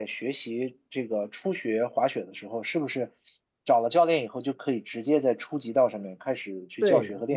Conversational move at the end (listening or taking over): taking over